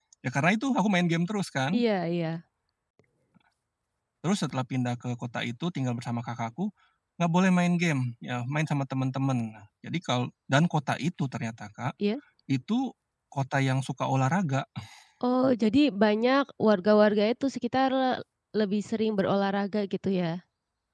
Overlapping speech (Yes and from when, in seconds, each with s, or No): No